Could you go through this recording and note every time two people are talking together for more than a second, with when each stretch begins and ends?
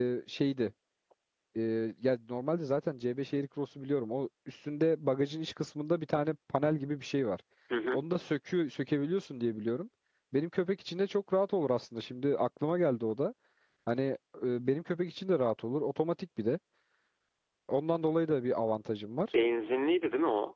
none

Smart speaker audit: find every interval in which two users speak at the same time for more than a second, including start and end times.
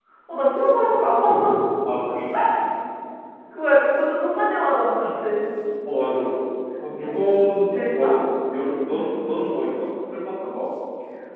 none

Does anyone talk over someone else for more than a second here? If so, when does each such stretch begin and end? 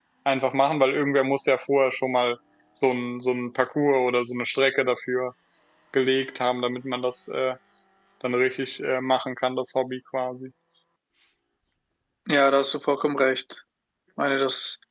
none

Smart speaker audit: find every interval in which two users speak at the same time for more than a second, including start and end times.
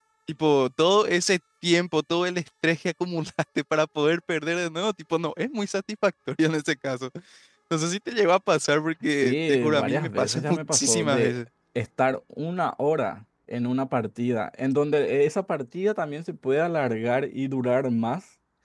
9.1-11.4

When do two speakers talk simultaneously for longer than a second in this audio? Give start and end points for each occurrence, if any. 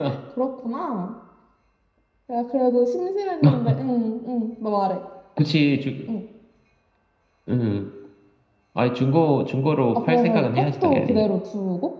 9.9-11.2

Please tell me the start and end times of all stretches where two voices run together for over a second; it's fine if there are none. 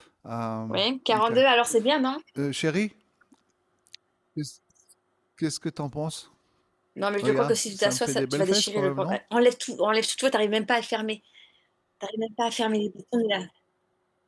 7.2-9.2

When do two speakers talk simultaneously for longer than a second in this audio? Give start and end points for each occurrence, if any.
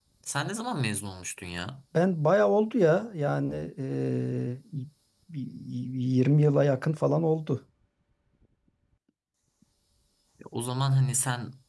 none

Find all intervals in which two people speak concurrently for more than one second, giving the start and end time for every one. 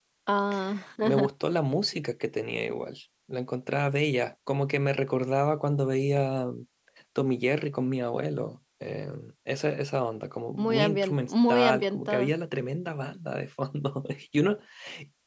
10.6-12.3

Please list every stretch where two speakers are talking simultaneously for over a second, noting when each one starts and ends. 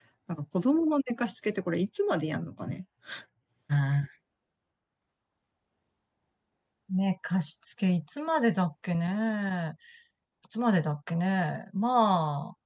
none

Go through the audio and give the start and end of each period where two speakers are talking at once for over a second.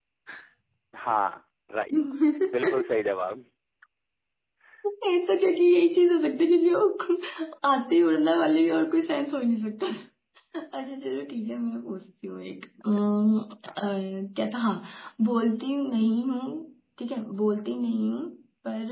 none

